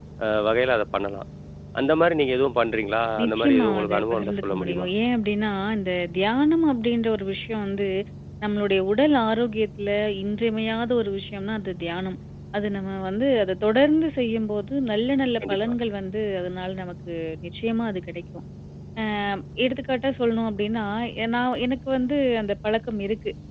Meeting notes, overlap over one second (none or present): present